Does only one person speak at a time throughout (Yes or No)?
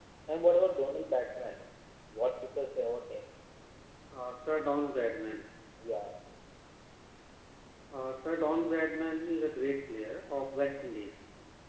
Yes